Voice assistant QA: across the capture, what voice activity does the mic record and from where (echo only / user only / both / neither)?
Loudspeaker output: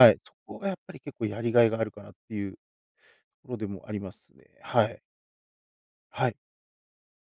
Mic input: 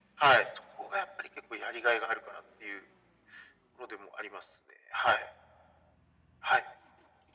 echo only